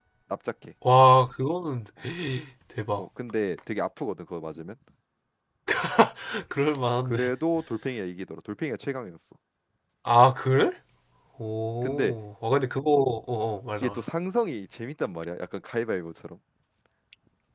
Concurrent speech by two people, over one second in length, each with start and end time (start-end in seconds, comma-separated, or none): none